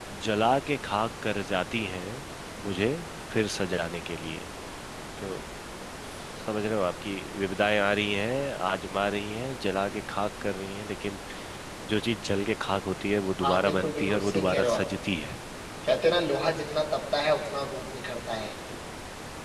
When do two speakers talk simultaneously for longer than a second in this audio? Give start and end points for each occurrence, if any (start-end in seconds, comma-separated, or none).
13.4-14.8